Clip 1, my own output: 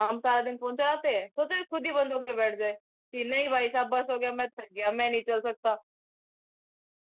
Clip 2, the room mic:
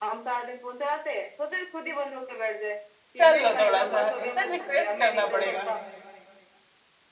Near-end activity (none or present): present